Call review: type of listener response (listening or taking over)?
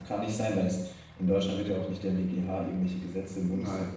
taking over